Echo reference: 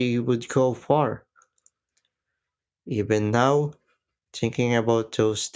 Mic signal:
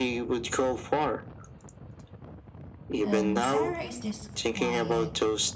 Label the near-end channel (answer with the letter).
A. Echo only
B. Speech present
B